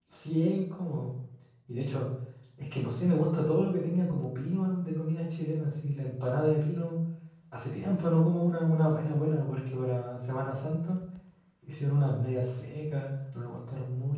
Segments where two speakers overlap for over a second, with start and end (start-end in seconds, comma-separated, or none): none